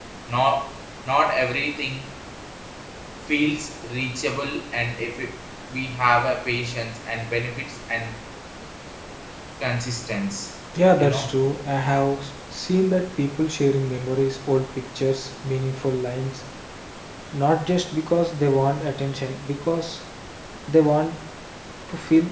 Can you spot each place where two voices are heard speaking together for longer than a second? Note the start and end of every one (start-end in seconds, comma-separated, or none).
none